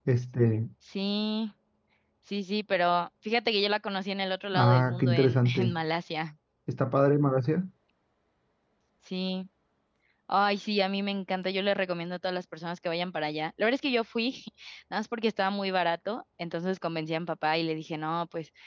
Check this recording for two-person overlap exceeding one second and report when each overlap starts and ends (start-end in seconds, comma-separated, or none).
4.5-5.8